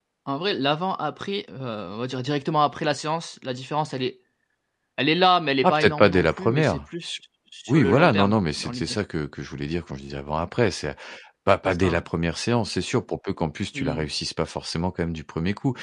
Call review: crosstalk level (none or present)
present